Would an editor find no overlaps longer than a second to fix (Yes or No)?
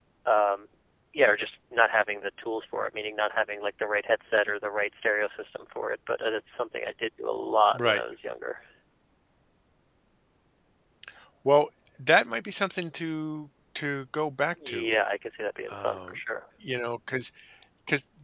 Yes